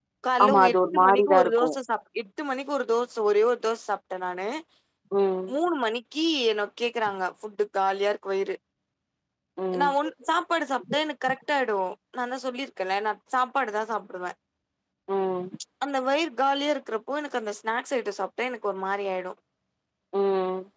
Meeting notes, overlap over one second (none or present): present